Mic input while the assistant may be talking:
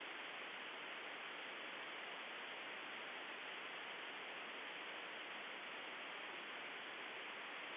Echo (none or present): none